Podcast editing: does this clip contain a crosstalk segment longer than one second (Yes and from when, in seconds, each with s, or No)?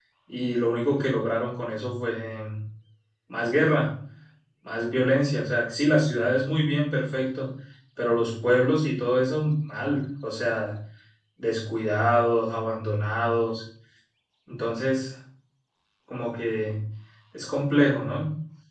No